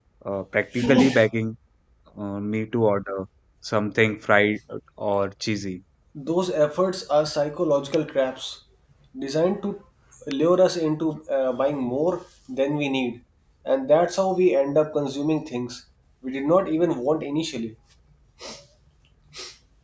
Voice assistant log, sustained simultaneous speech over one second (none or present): none